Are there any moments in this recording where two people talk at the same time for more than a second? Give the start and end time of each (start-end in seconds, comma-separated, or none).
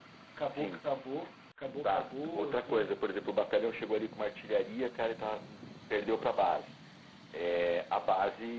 1.8-3.0